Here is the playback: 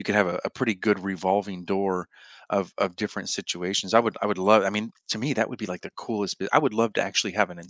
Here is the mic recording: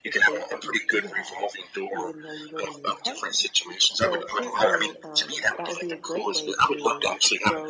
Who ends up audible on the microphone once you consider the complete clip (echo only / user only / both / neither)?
both